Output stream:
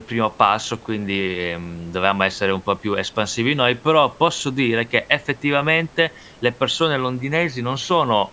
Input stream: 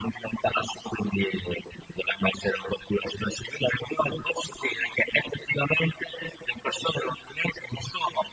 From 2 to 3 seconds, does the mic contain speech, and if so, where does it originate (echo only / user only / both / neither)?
echo only